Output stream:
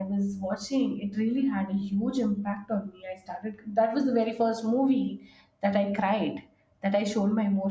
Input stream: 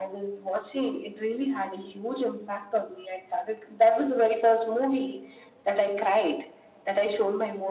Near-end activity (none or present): none